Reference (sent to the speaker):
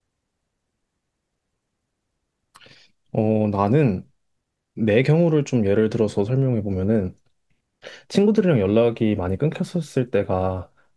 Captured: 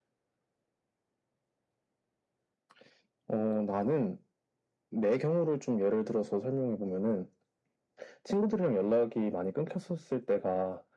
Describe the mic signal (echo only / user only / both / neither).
echo only